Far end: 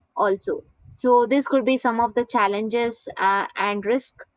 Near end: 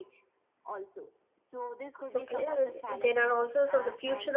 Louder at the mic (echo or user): user